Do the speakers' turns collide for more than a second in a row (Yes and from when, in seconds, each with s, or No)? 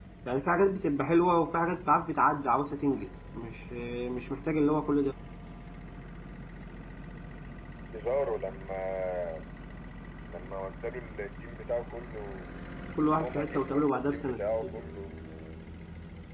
Yes, from 13.2 s